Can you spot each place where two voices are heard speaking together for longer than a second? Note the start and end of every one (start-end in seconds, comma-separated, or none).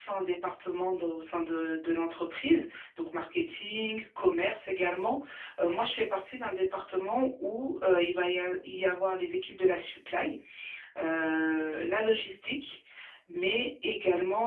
none